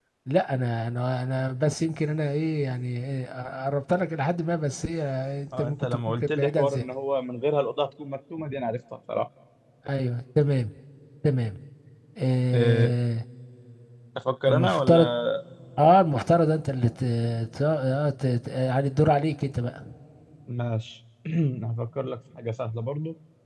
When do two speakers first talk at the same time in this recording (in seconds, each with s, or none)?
5.6 s